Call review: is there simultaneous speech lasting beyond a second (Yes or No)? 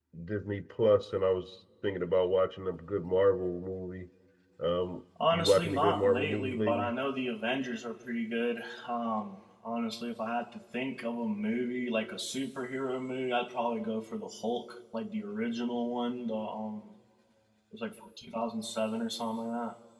Yes